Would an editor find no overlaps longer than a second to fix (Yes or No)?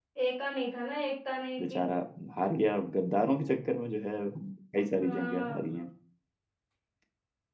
Yes